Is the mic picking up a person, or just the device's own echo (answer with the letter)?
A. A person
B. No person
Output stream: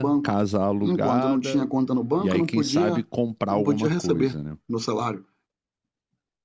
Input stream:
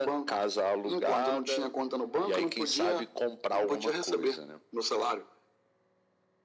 B